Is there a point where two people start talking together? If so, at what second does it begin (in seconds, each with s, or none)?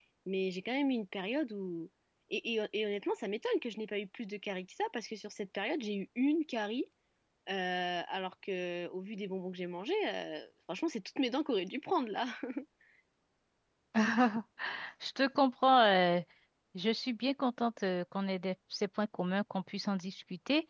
none